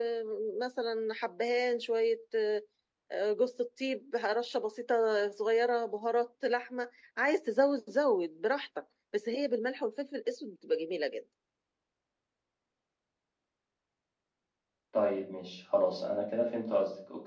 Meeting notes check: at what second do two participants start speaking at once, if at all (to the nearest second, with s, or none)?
none